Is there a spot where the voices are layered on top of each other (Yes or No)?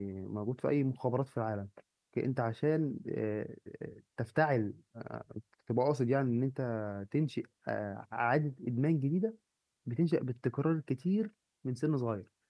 No